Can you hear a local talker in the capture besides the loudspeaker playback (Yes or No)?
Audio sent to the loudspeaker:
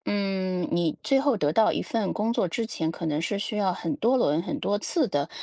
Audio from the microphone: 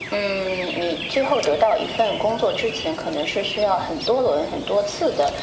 No